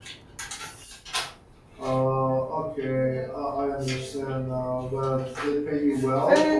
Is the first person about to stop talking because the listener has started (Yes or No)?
Yes